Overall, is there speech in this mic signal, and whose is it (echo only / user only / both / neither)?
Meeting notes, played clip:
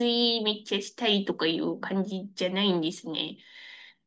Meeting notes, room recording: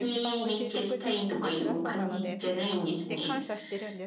both